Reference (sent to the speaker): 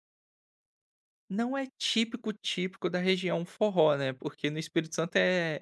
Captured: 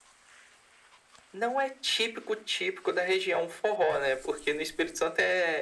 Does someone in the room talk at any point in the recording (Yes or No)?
No